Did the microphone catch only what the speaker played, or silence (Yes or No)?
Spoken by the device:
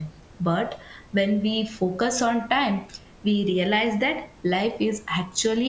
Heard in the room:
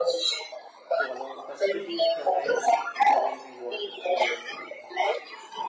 No